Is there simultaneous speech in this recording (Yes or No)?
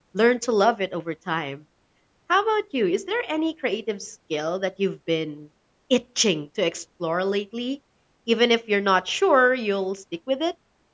No